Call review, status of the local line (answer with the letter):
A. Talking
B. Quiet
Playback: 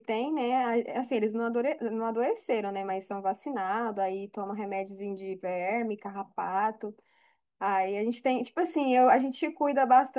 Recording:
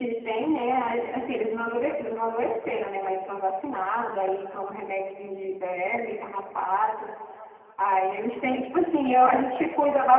B